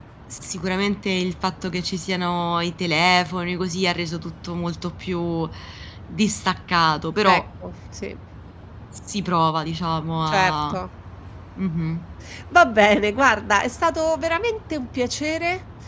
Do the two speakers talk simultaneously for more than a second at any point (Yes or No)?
No